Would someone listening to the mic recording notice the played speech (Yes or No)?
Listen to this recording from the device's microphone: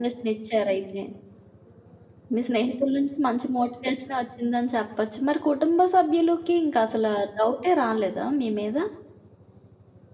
Yes